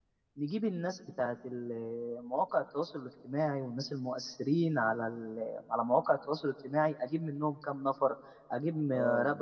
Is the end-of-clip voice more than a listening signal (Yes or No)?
No